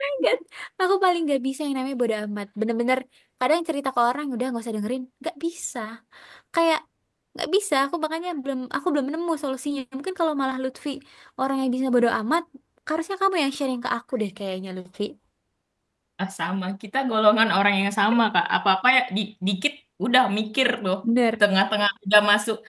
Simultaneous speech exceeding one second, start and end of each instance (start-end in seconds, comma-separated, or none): none